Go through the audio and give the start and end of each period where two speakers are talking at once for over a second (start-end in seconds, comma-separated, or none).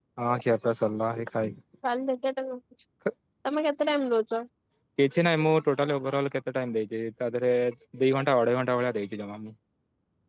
none